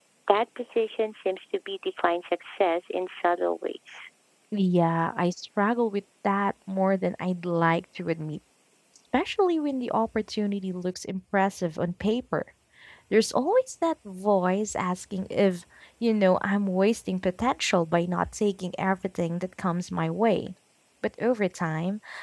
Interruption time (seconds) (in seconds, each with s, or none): none